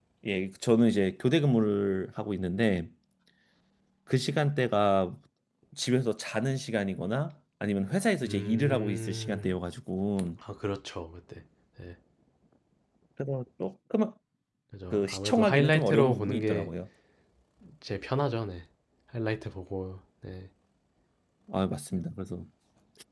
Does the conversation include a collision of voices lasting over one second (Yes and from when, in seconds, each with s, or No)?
Yes, from 8.2 s